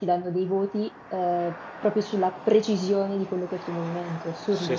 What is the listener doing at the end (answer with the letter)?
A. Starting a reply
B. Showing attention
A